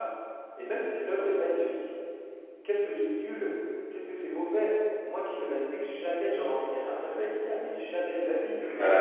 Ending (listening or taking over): taking over